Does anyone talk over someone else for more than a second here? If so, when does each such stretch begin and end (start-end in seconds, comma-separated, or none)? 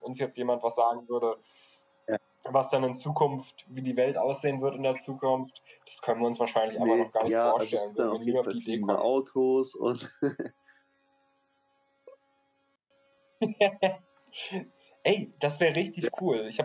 6.8-9.0